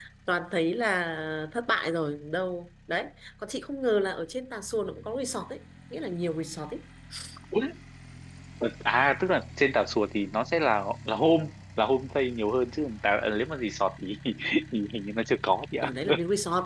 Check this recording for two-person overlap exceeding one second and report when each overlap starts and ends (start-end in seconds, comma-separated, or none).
none